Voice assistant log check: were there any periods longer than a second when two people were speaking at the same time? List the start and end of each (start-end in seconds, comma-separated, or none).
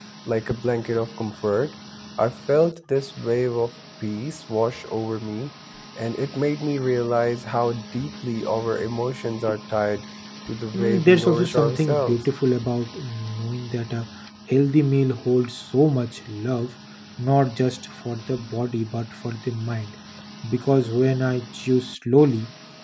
10.7-12.3